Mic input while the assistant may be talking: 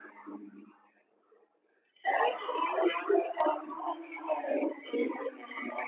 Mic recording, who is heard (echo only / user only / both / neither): echo only